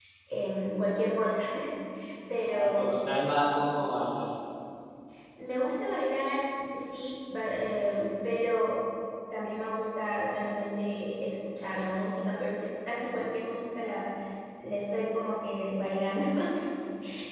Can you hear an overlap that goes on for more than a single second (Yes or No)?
No